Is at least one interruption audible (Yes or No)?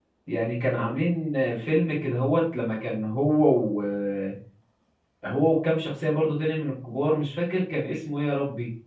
No